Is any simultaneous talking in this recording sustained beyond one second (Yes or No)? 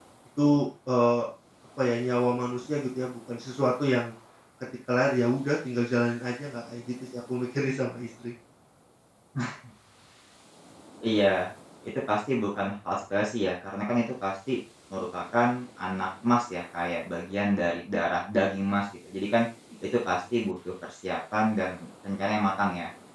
No